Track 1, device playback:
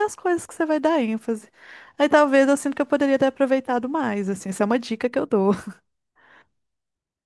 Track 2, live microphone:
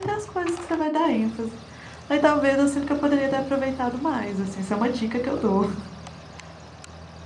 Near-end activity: none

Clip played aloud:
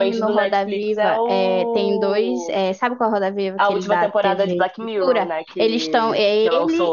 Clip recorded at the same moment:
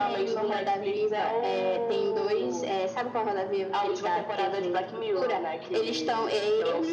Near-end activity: none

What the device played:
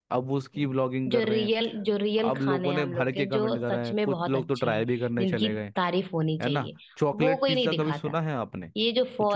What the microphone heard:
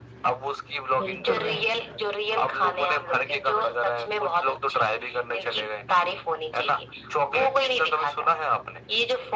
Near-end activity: present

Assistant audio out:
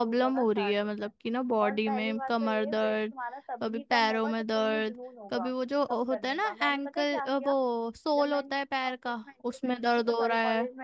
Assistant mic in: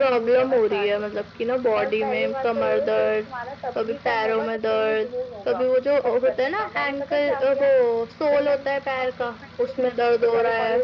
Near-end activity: none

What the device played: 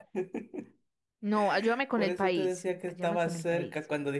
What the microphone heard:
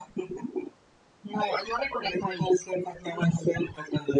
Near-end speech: none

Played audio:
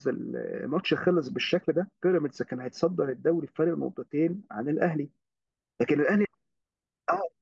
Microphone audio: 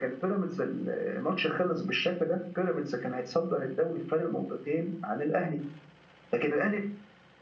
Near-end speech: none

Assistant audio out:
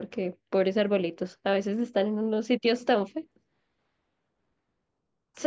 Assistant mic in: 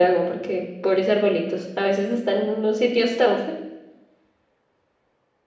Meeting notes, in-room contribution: none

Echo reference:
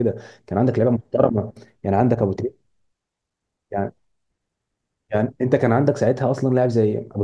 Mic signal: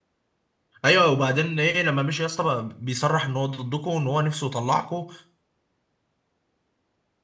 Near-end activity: present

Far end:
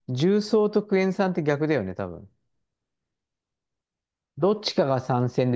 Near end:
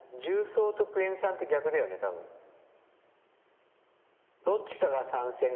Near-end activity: none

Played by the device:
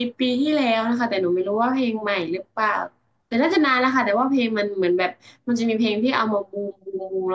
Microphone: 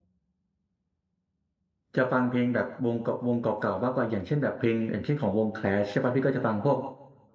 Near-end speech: present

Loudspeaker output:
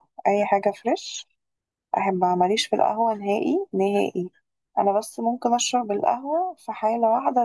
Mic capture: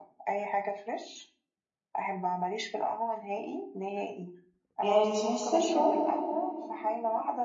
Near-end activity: present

